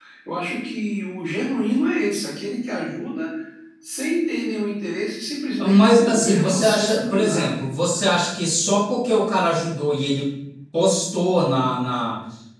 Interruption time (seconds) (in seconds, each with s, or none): 5.6 s